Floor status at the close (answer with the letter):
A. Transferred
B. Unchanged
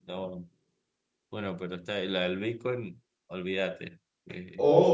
A